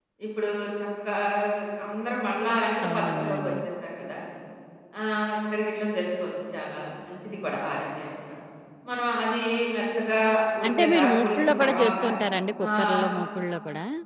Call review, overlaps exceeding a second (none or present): present